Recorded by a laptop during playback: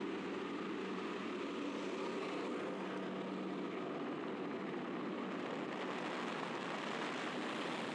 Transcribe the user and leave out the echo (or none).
none